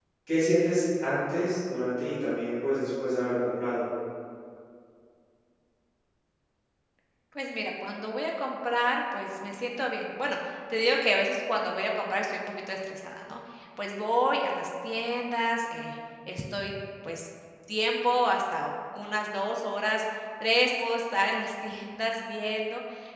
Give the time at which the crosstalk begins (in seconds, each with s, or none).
none